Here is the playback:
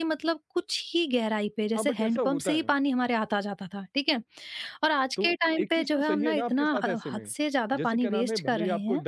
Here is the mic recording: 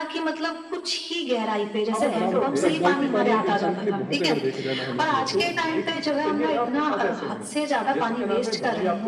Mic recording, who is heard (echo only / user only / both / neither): both